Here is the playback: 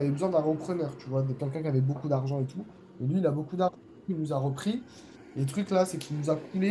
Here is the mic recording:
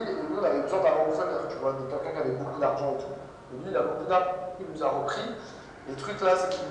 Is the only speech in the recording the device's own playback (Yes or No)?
Yes